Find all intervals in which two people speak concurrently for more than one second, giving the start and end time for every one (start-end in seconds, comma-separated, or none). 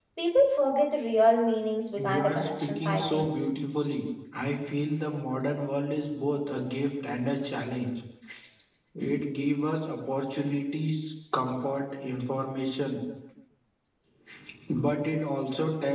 1.9-3.3